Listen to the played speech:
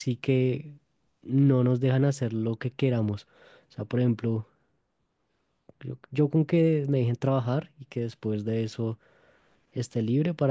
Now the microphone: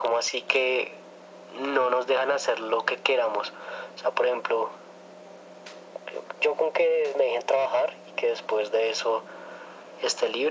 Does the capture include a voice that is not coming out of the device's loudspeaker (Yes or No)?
No